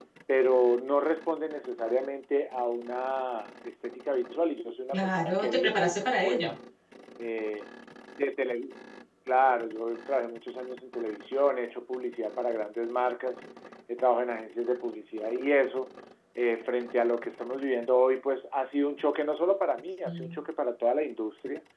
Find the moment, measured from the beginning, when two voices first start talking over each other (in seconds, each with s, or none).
4.9 s